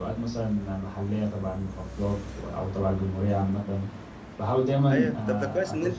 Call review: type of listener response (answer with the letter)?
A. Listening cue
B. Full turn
B